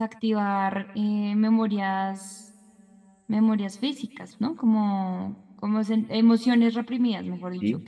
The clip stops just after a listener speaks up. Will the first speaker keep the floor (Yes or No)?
No